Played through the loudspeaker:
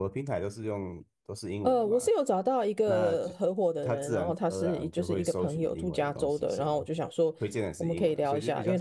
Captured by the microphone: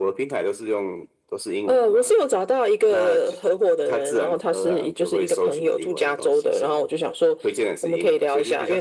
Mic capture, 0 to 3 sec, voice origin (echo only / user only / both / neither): echo only